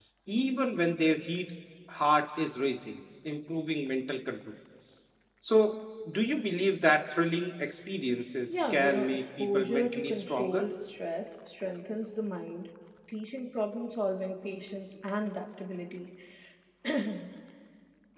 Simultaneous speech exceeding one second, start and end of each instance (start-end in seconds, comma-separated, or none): 8.5-10.7